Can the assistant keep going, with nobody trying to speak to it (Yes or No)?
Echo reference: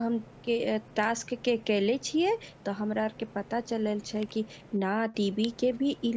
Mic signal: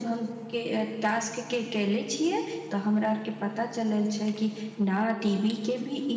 Yes